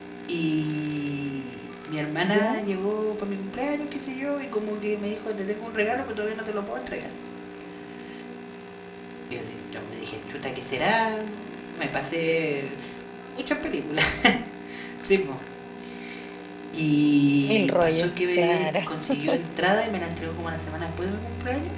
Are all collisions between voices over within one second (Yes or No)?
No